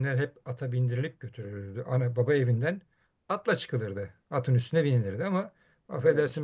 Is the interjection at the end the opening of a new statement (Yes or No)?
No